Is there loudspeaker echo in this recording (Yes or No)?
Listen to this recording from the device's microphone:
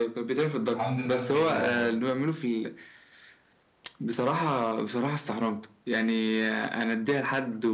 Yes